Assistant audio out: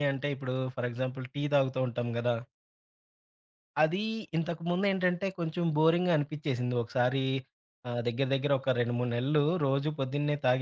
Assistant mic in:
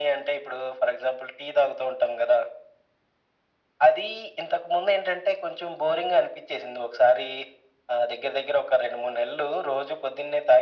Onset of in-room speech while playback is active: none

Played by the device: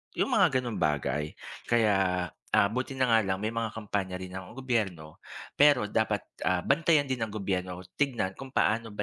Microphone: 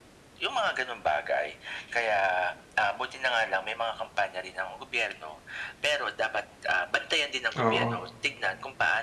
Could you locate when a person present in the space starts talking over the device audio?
7.6 s

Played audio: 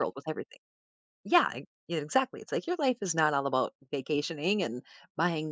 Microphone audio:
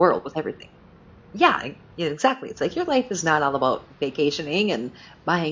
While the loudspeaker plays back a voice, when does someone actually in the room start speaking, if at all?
none

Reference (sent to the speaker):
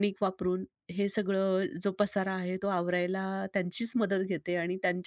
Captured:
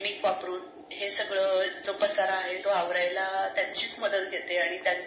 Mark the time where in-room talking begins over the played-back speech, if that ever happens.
none

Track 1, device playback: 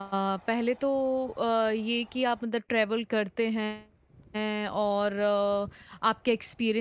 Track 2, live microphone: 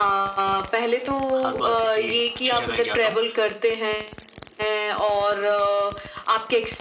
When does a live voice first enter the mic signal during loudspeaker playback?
1.4 s

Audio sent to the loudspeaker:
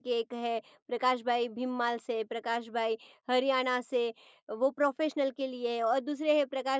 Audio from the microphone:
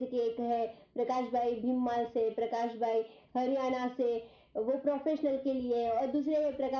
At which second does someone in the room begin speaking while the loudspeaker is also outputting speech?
none

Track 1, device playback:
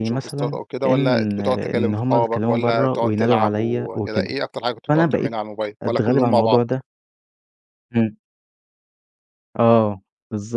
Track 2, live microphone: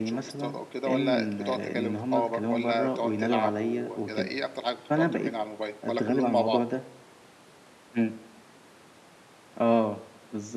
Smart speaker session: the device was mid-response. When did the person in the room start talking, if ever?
none

